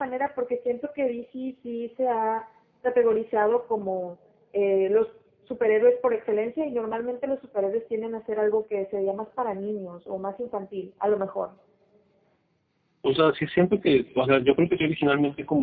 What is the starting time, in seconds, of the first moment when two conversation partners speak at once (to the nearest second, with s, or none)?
none